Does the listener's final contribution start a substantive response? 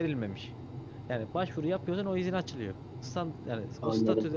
No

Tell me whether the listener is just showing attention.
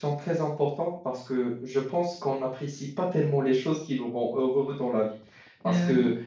Yes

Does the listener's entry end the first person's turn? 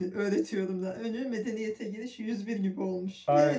Yes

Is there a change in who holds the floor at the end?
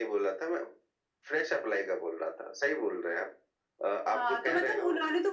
Yes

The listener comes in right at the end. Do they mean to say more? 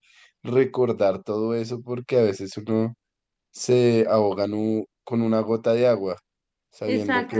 Yes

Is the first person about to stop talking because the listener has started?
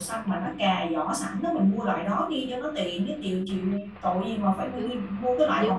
Yes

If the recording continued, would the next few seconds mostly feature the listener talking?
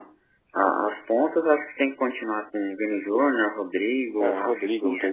Yes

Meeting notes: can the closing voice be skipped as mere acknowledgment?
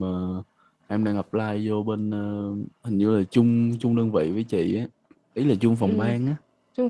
No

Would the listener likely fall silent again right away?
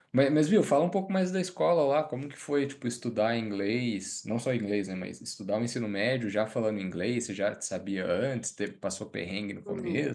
No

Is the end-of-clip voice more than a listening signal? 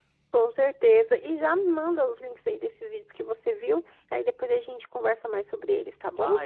Yes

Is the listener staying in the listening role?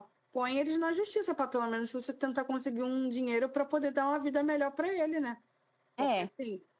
Yes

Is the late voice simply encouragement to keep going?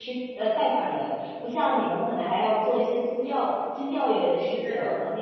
Yes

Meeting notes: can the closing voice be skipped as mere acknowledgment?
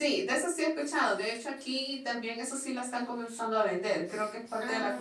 Yes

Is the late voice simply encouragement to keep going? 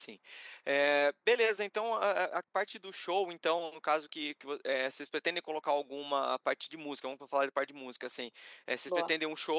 Yes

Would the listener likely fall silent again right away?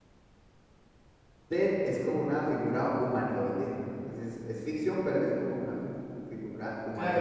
No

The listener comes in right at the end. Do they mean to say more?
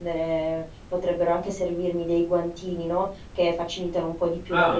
Yes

